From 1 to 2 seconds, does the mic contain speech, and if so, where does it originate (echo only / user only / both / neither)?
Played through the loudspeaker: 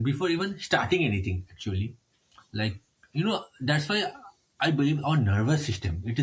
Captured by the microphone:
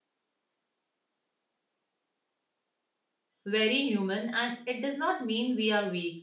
neither